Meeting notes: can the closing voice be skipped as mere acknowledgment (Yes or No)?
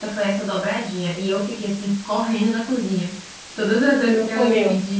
Yes